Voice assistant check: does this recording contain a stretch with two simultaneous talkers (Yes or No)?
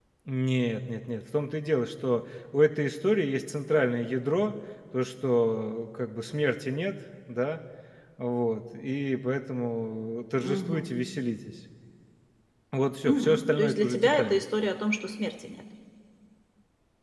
Yes